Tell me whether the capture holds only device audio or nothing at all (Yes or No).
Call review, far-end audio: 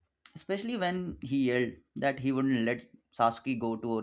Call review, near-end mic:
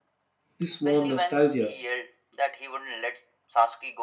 No